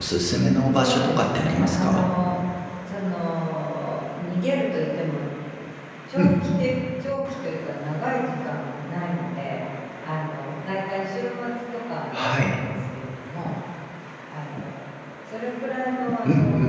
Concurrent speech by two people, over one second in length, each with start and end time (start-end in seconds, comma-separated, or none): 0.7-2.1